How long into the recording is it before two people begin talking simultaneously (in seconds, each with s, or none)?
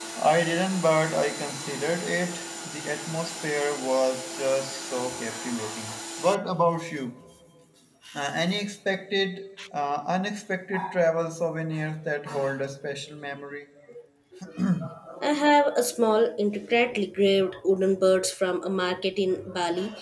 none